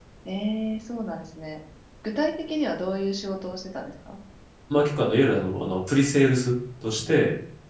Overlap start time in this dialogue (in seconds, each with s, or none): none